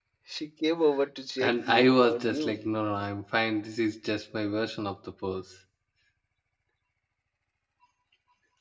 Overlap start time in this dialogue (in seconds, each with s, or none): 1.4 s